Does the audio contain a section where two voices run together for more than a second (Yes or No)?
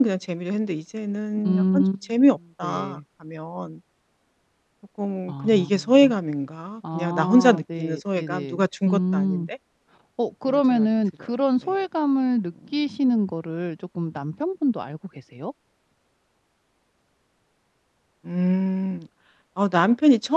Yes